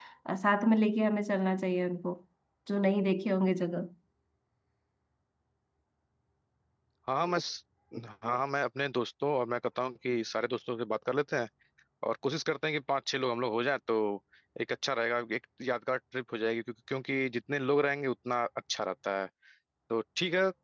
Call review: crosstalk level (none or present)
none